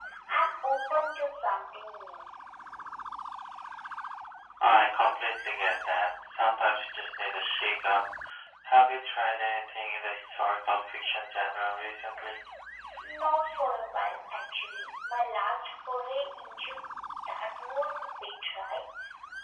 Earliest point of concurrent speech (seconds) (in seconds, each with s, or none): none